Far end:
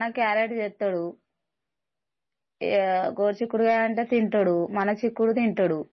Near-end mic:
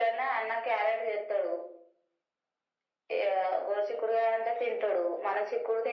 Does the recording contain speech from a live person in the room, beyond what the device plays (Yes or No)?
No